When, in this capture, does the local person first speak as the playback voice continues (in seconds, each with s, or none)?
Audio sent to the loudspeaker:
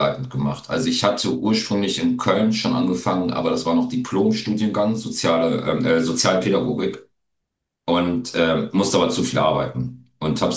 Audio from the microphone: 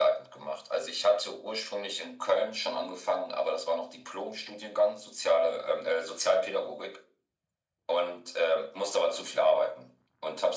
none